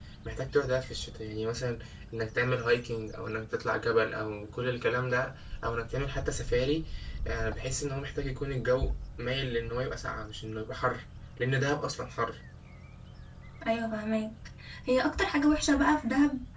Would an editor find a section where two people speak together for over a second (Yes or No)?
No